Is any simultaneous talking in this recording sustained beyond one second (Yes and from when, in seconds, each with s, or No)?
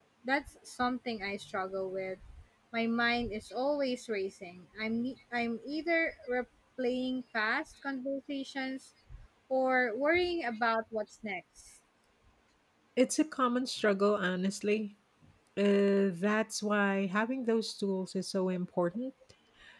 No